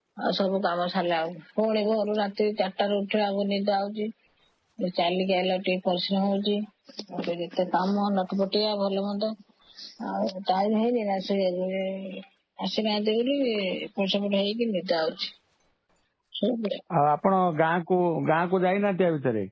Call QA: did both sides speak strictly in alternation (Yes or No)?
Yes